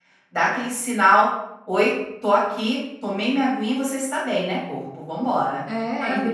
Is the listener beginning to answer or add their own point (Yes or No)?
Yes